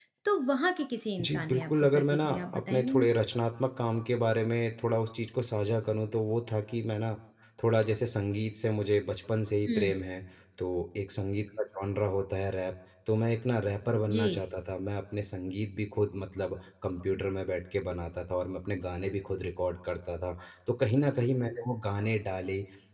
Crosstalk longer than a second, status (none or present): present